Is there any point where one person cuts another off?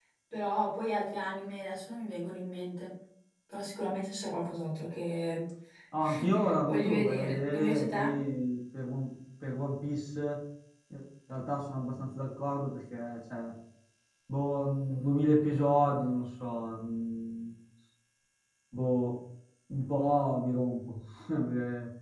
Yes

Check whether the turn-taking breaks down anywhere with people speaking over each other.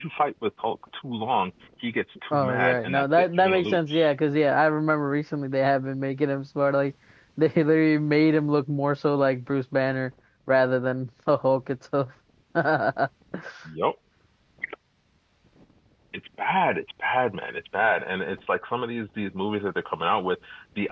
Yes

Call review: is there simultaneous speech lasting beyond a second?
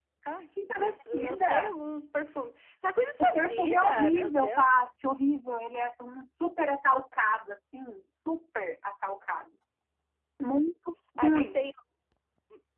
Yes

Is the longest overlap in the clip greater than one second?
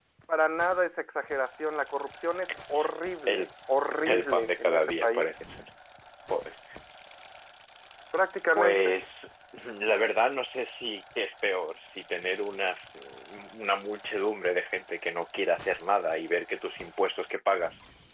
Yes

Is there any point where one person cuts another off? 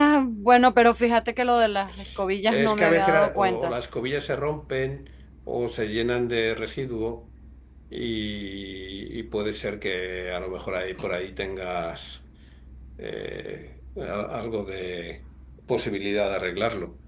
Yes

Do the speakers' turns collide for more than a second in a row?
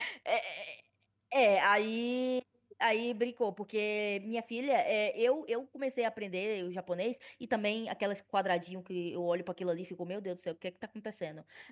No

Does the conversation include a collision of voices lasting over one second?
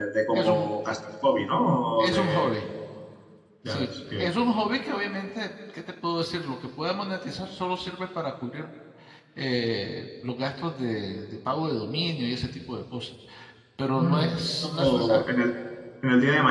Yes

